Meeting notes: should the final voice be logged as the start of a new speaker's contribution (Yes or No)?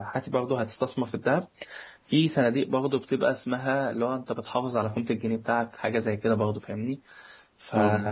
No